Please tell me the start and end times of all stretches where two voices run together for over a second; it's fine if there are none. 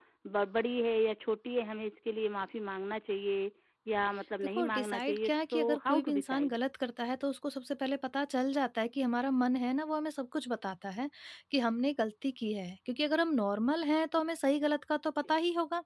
4.5-6.5

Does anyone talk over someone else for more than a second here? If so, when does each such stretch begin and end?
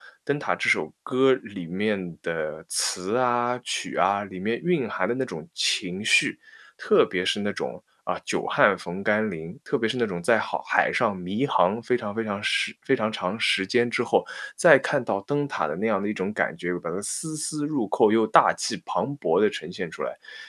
none

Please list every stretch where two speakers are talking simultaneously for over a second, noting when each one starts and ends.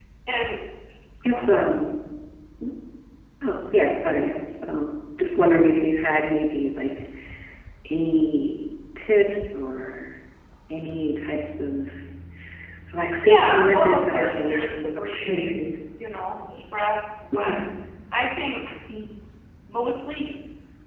13.2-15.6

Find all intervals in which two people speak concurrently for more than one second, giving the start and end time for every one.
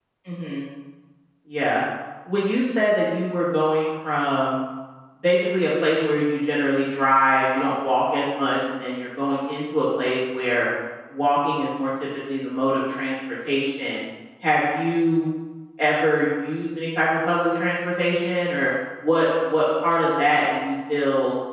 none

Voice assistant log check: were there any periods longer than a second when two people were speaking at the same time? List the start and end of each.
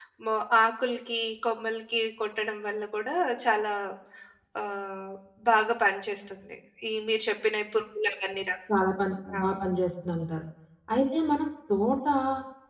none

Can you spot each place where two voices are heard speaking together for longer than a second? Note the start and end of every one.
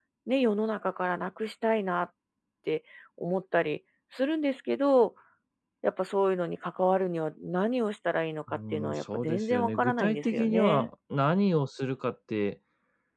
8.5-10.9

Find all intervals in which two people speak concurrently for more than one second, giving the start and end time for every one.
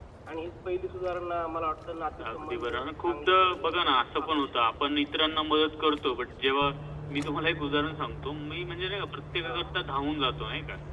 2.3-4.5

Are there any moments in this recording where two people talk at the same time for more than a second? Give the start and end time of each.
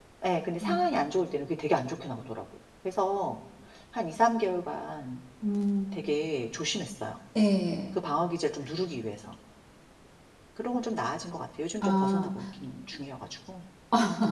none

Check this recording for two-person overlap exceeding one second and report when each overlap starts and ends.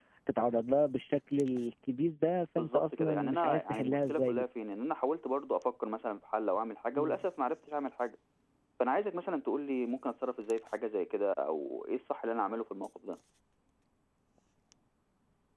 2.6-4.4

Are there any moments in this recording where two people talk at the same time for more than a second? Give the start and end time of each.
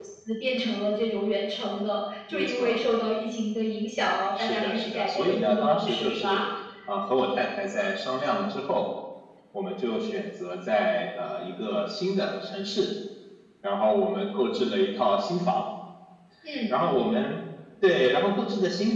4.4-6.4

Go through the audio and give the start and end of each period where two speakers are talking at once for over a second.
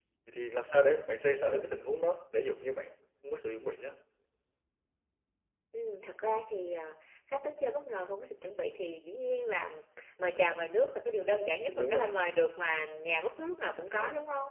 none

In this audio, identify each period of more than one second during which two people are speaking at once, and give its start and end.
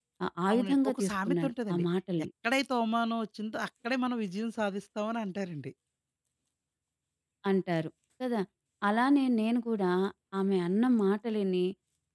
0.5-1.8

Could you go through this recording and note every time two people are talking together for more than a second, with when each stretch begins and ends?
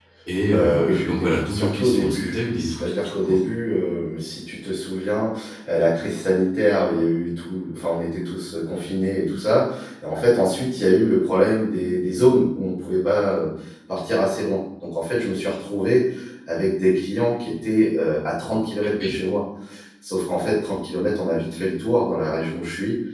0.5-3.4

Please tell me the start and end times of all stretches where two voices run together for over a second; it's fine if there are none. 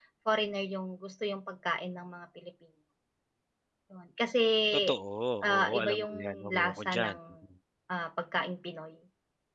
5.6-7.2

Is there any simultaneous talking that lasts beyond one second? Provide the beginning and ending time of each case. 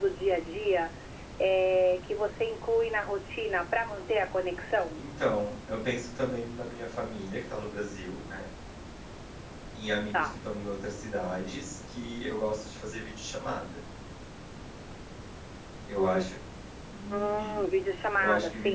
none

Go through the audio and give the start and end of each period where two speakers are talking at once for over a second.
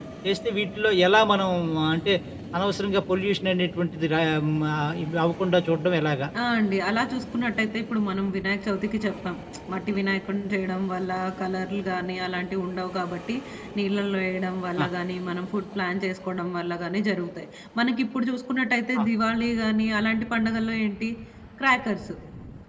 none

